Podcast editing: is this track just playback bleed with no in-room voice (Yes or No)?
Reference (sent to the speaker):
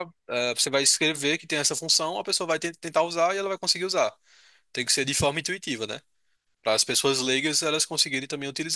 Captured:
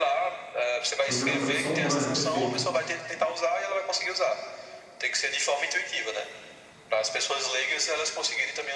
No